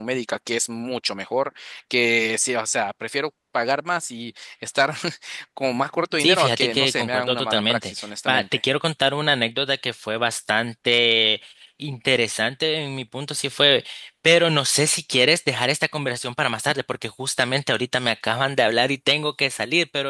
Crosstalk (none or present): present